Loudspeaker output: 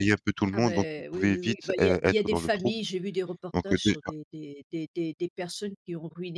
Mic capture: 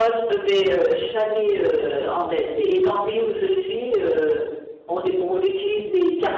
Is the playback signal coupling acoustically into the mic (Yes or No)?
No